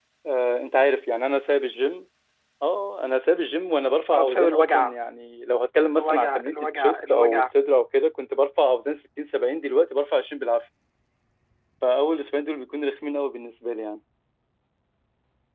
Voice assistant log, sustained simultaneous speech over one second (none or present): present